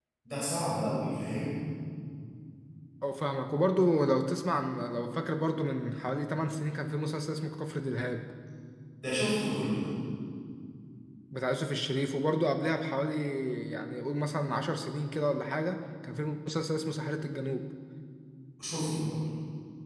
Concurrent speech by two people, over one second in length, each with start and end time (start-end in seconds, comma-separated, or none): none